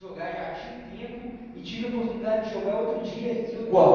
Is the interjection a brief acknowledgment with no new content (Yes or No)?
Yes